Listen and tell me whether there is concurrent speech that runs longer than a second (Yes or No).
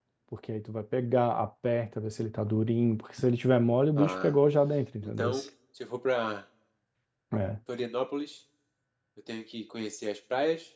No